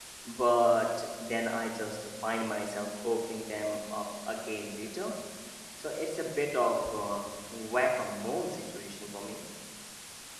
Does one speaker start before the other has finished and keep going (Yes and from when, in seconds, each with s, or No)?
No